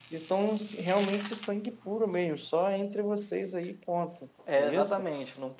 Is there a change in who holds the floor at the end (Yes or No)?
Yes